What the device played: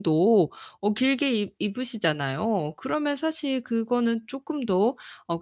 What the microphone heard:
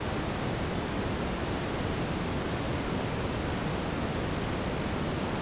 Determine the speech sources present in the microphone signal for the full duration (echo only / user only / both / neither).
neither